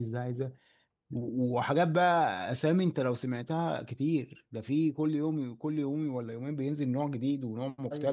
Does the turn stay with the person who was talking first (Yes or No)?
No